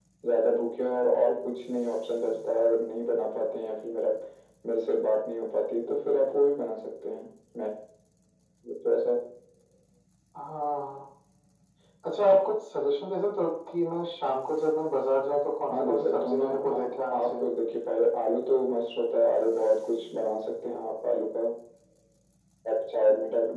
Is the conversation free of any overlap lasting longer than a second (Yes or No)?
No